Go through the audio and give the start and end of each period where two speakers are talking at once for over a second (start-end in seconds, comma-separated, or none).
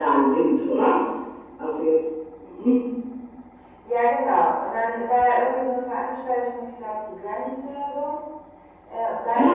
none